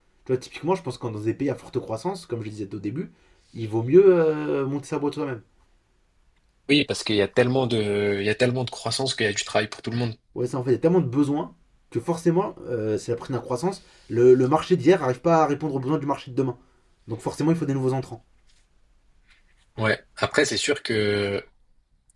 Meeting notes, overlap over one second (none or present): none